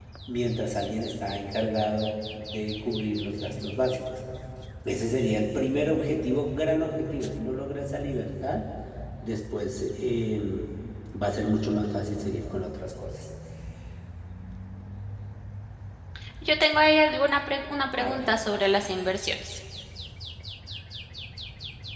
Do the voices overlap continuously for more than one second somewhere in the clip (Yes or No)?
No